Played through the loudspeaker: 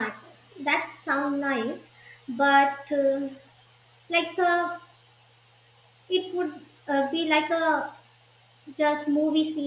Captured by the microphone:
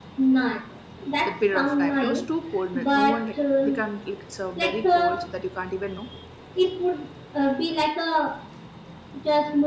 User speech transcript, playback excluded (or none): that period of time. It was too cold. No no one like we can't like it's uh, very cold so that you can't even know.